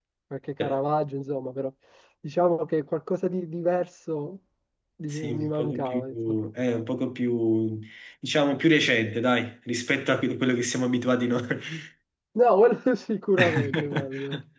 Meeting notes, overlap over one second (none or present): present